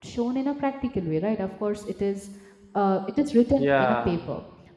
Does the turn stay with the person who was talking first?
Yes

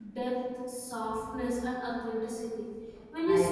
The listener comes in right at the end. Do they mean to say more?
No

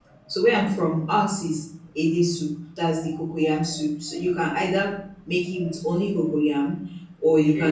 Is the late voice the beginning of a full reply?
No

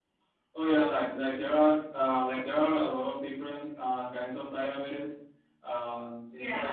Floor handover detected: Yes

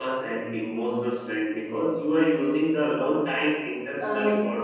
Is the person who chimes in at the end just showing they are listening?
No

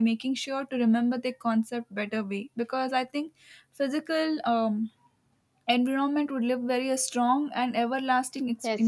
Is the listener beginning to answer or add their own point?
Yes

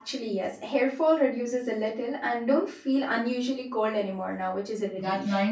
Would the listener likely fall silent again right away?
No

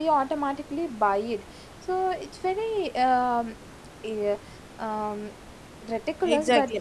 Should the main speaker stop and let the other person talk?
Yes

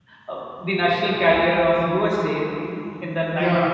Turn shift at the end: No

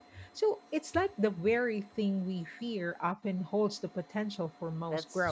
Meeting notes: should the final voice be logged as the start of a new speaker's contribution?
Yes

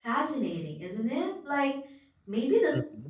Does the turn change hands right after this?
No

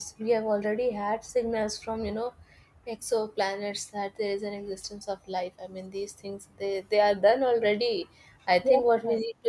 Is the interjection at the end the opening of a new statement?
No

